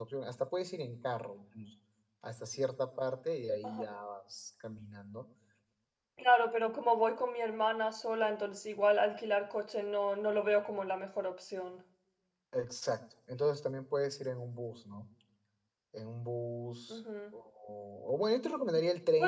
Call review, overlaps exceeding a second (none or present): none